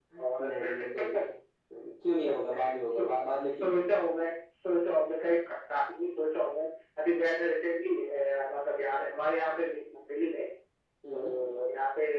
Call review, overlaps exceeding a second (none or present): present